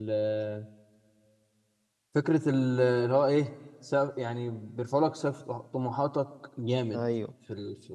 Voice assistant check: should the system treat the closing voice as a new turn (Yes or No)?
No